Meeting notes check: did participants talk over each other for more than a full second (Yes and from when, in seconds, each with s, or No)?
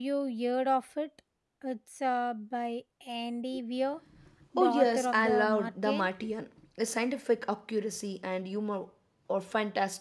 Yes, from 4.6 s